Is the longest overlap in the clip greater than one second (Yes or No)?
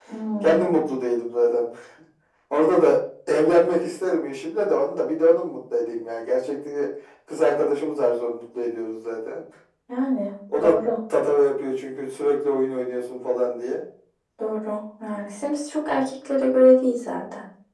No